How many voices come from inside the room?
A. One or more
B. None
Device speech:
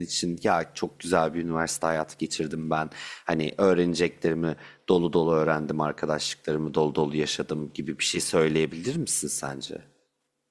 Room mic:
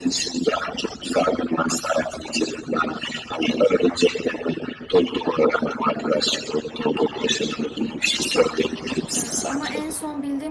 A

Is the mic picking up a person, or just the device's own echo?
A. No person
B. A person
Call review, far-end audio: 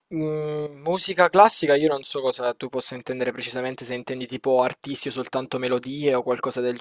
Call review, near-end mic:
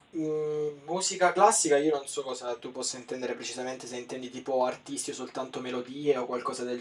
A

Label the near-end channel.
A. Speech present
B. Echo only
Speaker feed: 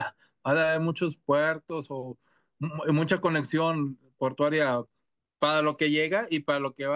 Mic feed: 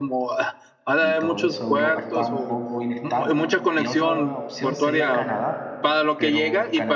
A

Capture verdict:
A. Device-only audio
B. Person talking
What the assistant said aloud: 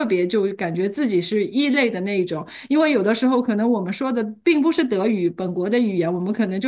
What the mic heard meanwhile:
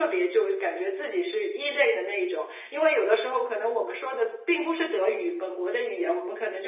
A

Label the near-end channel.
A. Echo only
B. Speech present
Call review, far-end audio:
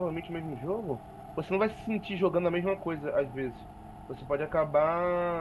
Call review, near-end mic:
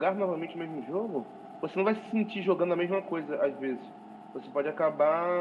A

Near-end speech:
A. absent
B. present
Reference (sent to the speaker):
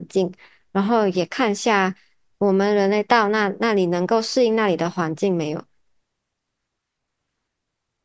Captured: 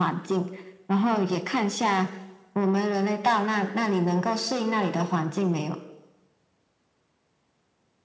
A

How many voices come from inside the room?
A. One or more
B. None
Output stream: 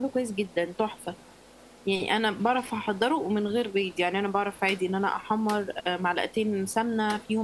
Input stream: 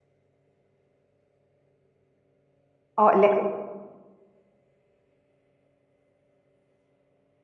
A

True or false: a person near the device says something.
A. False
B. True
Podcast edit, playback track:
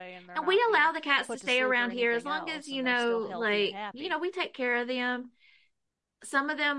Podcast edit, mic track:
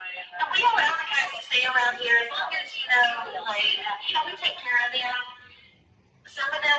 A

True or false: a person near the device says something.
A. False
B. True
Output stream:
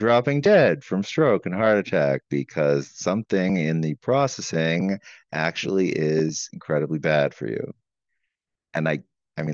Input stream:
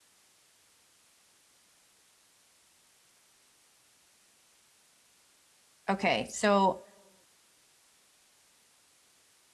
B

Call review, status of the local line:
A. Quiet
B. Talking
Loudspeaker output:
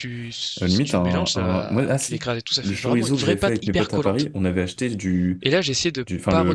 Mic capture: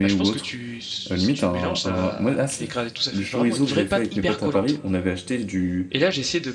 A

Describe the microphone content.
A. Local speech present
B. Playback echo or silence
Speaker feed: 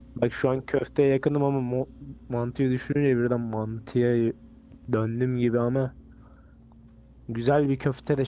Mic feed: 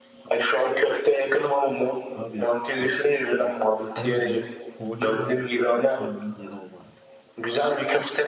A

